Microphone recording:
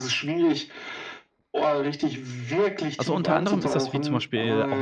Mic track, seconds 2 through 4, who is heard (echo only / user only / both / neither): both